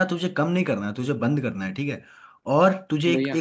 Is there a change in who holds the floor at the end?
No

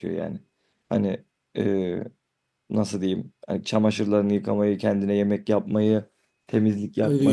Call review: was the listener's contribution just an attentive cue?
No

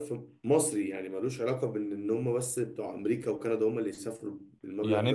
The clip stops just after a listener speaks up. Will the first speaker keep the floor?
No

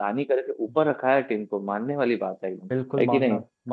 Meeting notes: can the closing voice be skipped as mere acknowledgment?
No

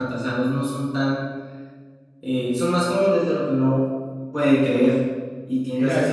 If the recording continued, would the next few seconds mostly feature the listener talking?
No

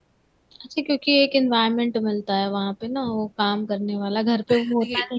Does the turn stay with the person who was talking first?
No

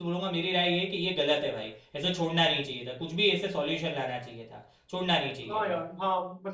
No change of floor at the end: No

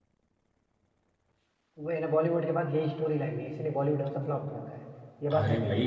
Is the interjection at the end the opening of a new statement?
Yes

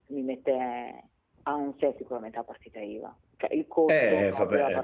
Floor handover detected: Yes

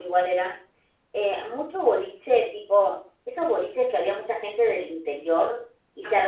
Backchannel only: Yes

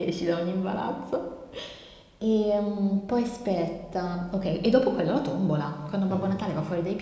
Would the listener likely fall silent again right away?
Yes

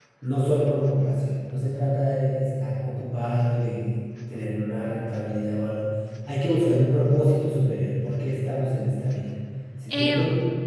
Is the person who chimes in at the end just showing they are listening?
Yes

